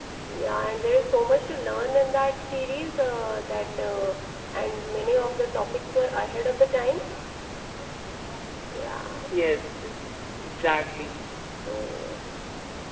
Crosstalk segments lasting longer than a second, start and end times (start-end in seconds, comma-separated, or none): none